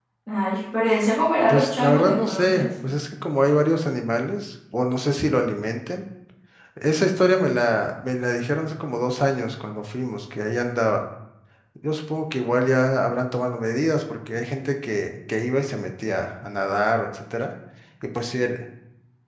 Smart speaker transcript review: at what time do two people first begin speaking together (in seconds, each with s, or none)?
1.5 s